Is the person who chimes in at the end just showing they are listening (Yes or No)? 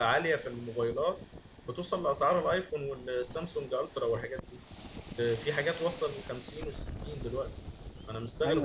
No